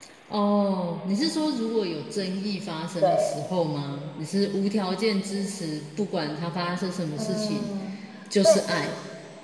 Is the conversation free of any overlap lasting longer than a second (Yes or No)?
Yes